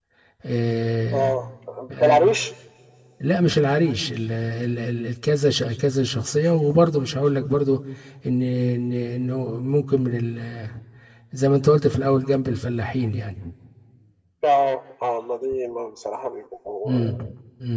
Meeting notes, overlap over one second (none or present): none